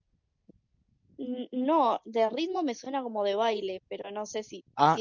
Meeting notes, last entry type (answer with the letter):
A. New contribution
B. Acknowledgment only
A